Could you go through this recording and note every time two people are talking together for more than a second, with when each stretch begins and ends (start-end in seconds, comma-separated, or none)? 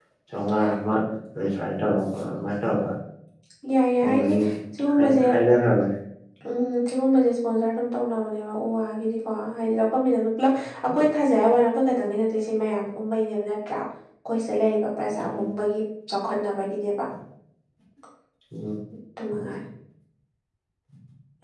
none